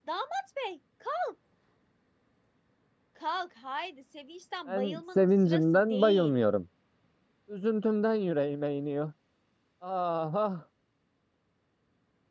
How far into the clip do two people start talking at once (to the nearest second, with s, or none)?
5 s